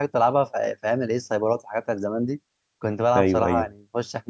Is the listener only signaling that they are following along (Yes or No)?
Yes